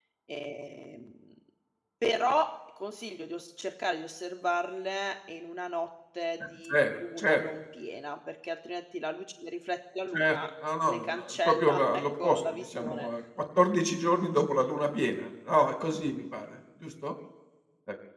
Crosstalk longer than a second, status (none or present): present